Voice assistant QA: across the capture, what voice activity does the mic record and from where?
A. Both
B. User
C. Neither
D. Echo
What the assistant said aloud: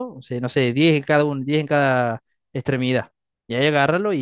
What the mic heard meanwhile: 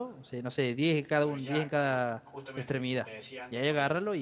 A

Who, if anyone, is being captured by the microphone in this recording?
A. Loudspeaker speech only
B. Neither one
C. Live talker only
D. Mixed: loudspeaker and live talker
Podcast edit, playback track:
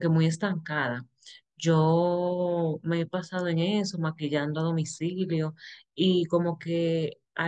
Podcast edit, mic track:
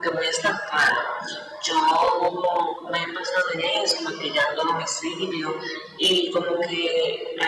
A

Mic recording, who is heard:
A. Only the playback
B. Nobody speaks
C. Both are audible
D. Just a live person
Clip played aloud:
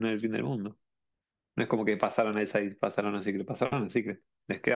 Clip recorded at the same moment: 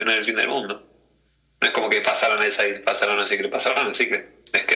A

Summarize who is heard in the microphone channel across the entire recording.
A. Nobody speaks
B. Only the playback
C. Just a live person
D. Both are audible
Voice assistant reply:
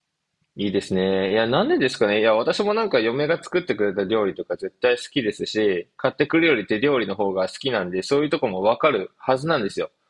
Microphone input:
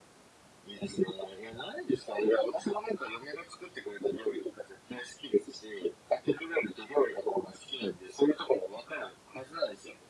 B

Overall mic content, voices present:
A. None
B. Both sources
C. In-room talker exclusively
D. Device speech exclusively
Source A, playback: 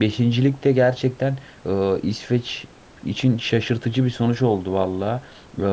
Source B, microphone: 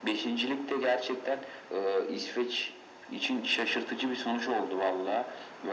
D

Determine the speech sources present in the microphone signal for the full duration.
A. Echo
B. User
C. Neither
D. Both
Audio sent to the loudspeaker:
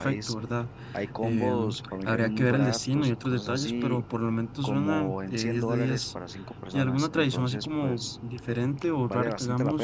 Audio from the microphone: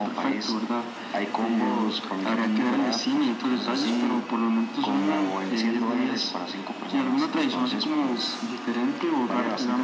A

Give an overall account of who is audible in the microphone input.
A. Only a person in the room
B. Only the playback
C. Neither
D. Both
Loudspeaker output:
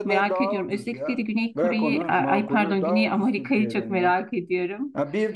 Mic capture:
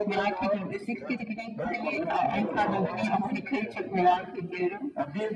D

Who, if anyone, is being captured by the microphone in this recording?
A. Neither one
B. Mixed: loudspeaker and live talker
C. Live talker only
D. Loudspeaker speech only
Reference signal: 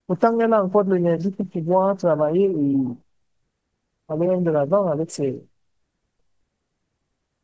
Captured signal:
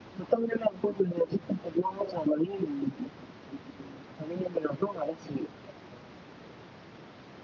D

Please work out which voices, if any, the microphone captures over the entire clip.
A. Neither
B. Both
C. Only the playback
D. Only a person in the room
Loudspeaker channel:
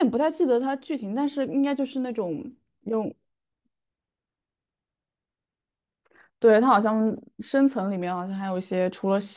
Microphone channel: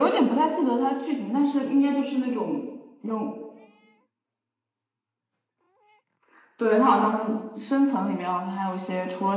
C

